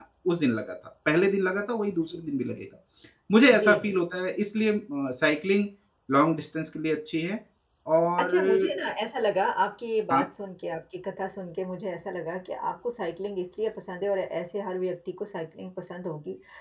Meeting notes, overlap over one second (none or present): none